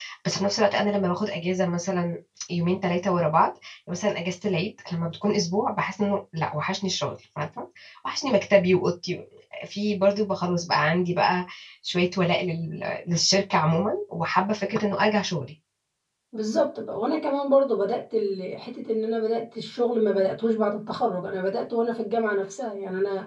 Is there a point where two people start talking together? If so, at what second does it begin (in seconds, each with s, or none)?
none